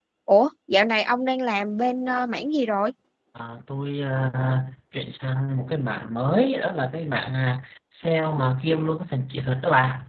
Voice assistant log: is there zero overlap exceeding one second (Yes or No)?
Yes